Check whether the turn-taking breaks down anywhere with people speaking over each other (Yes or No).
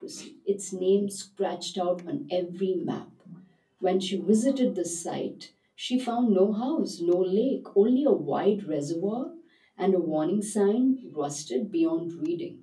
No